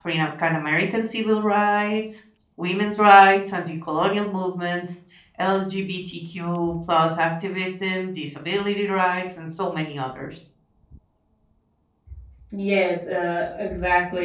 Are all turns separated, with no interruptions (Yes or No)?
Yes